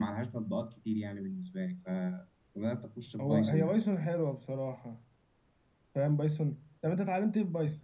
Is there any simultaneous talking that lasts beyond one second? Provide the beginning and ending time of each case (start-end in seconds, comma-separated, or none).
none